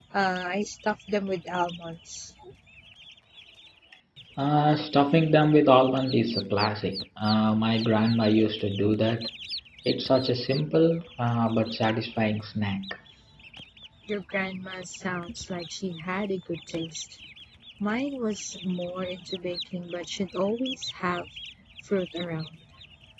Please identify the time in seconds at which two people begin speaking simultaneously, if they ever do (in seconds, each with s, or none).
none